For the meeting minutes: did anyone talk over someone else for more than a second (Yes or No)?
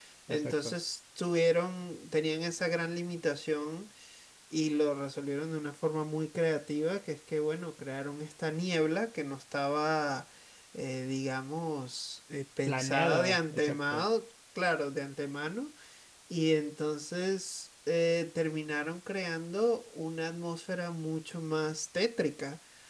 Yes